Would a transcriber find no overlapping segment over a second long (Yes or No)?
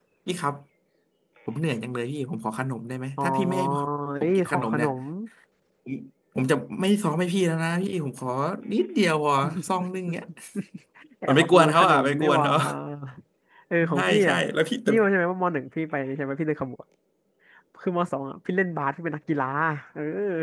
No